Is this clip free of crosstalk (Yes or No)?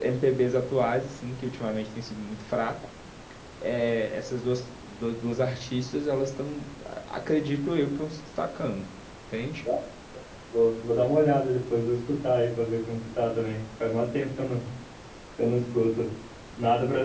Yes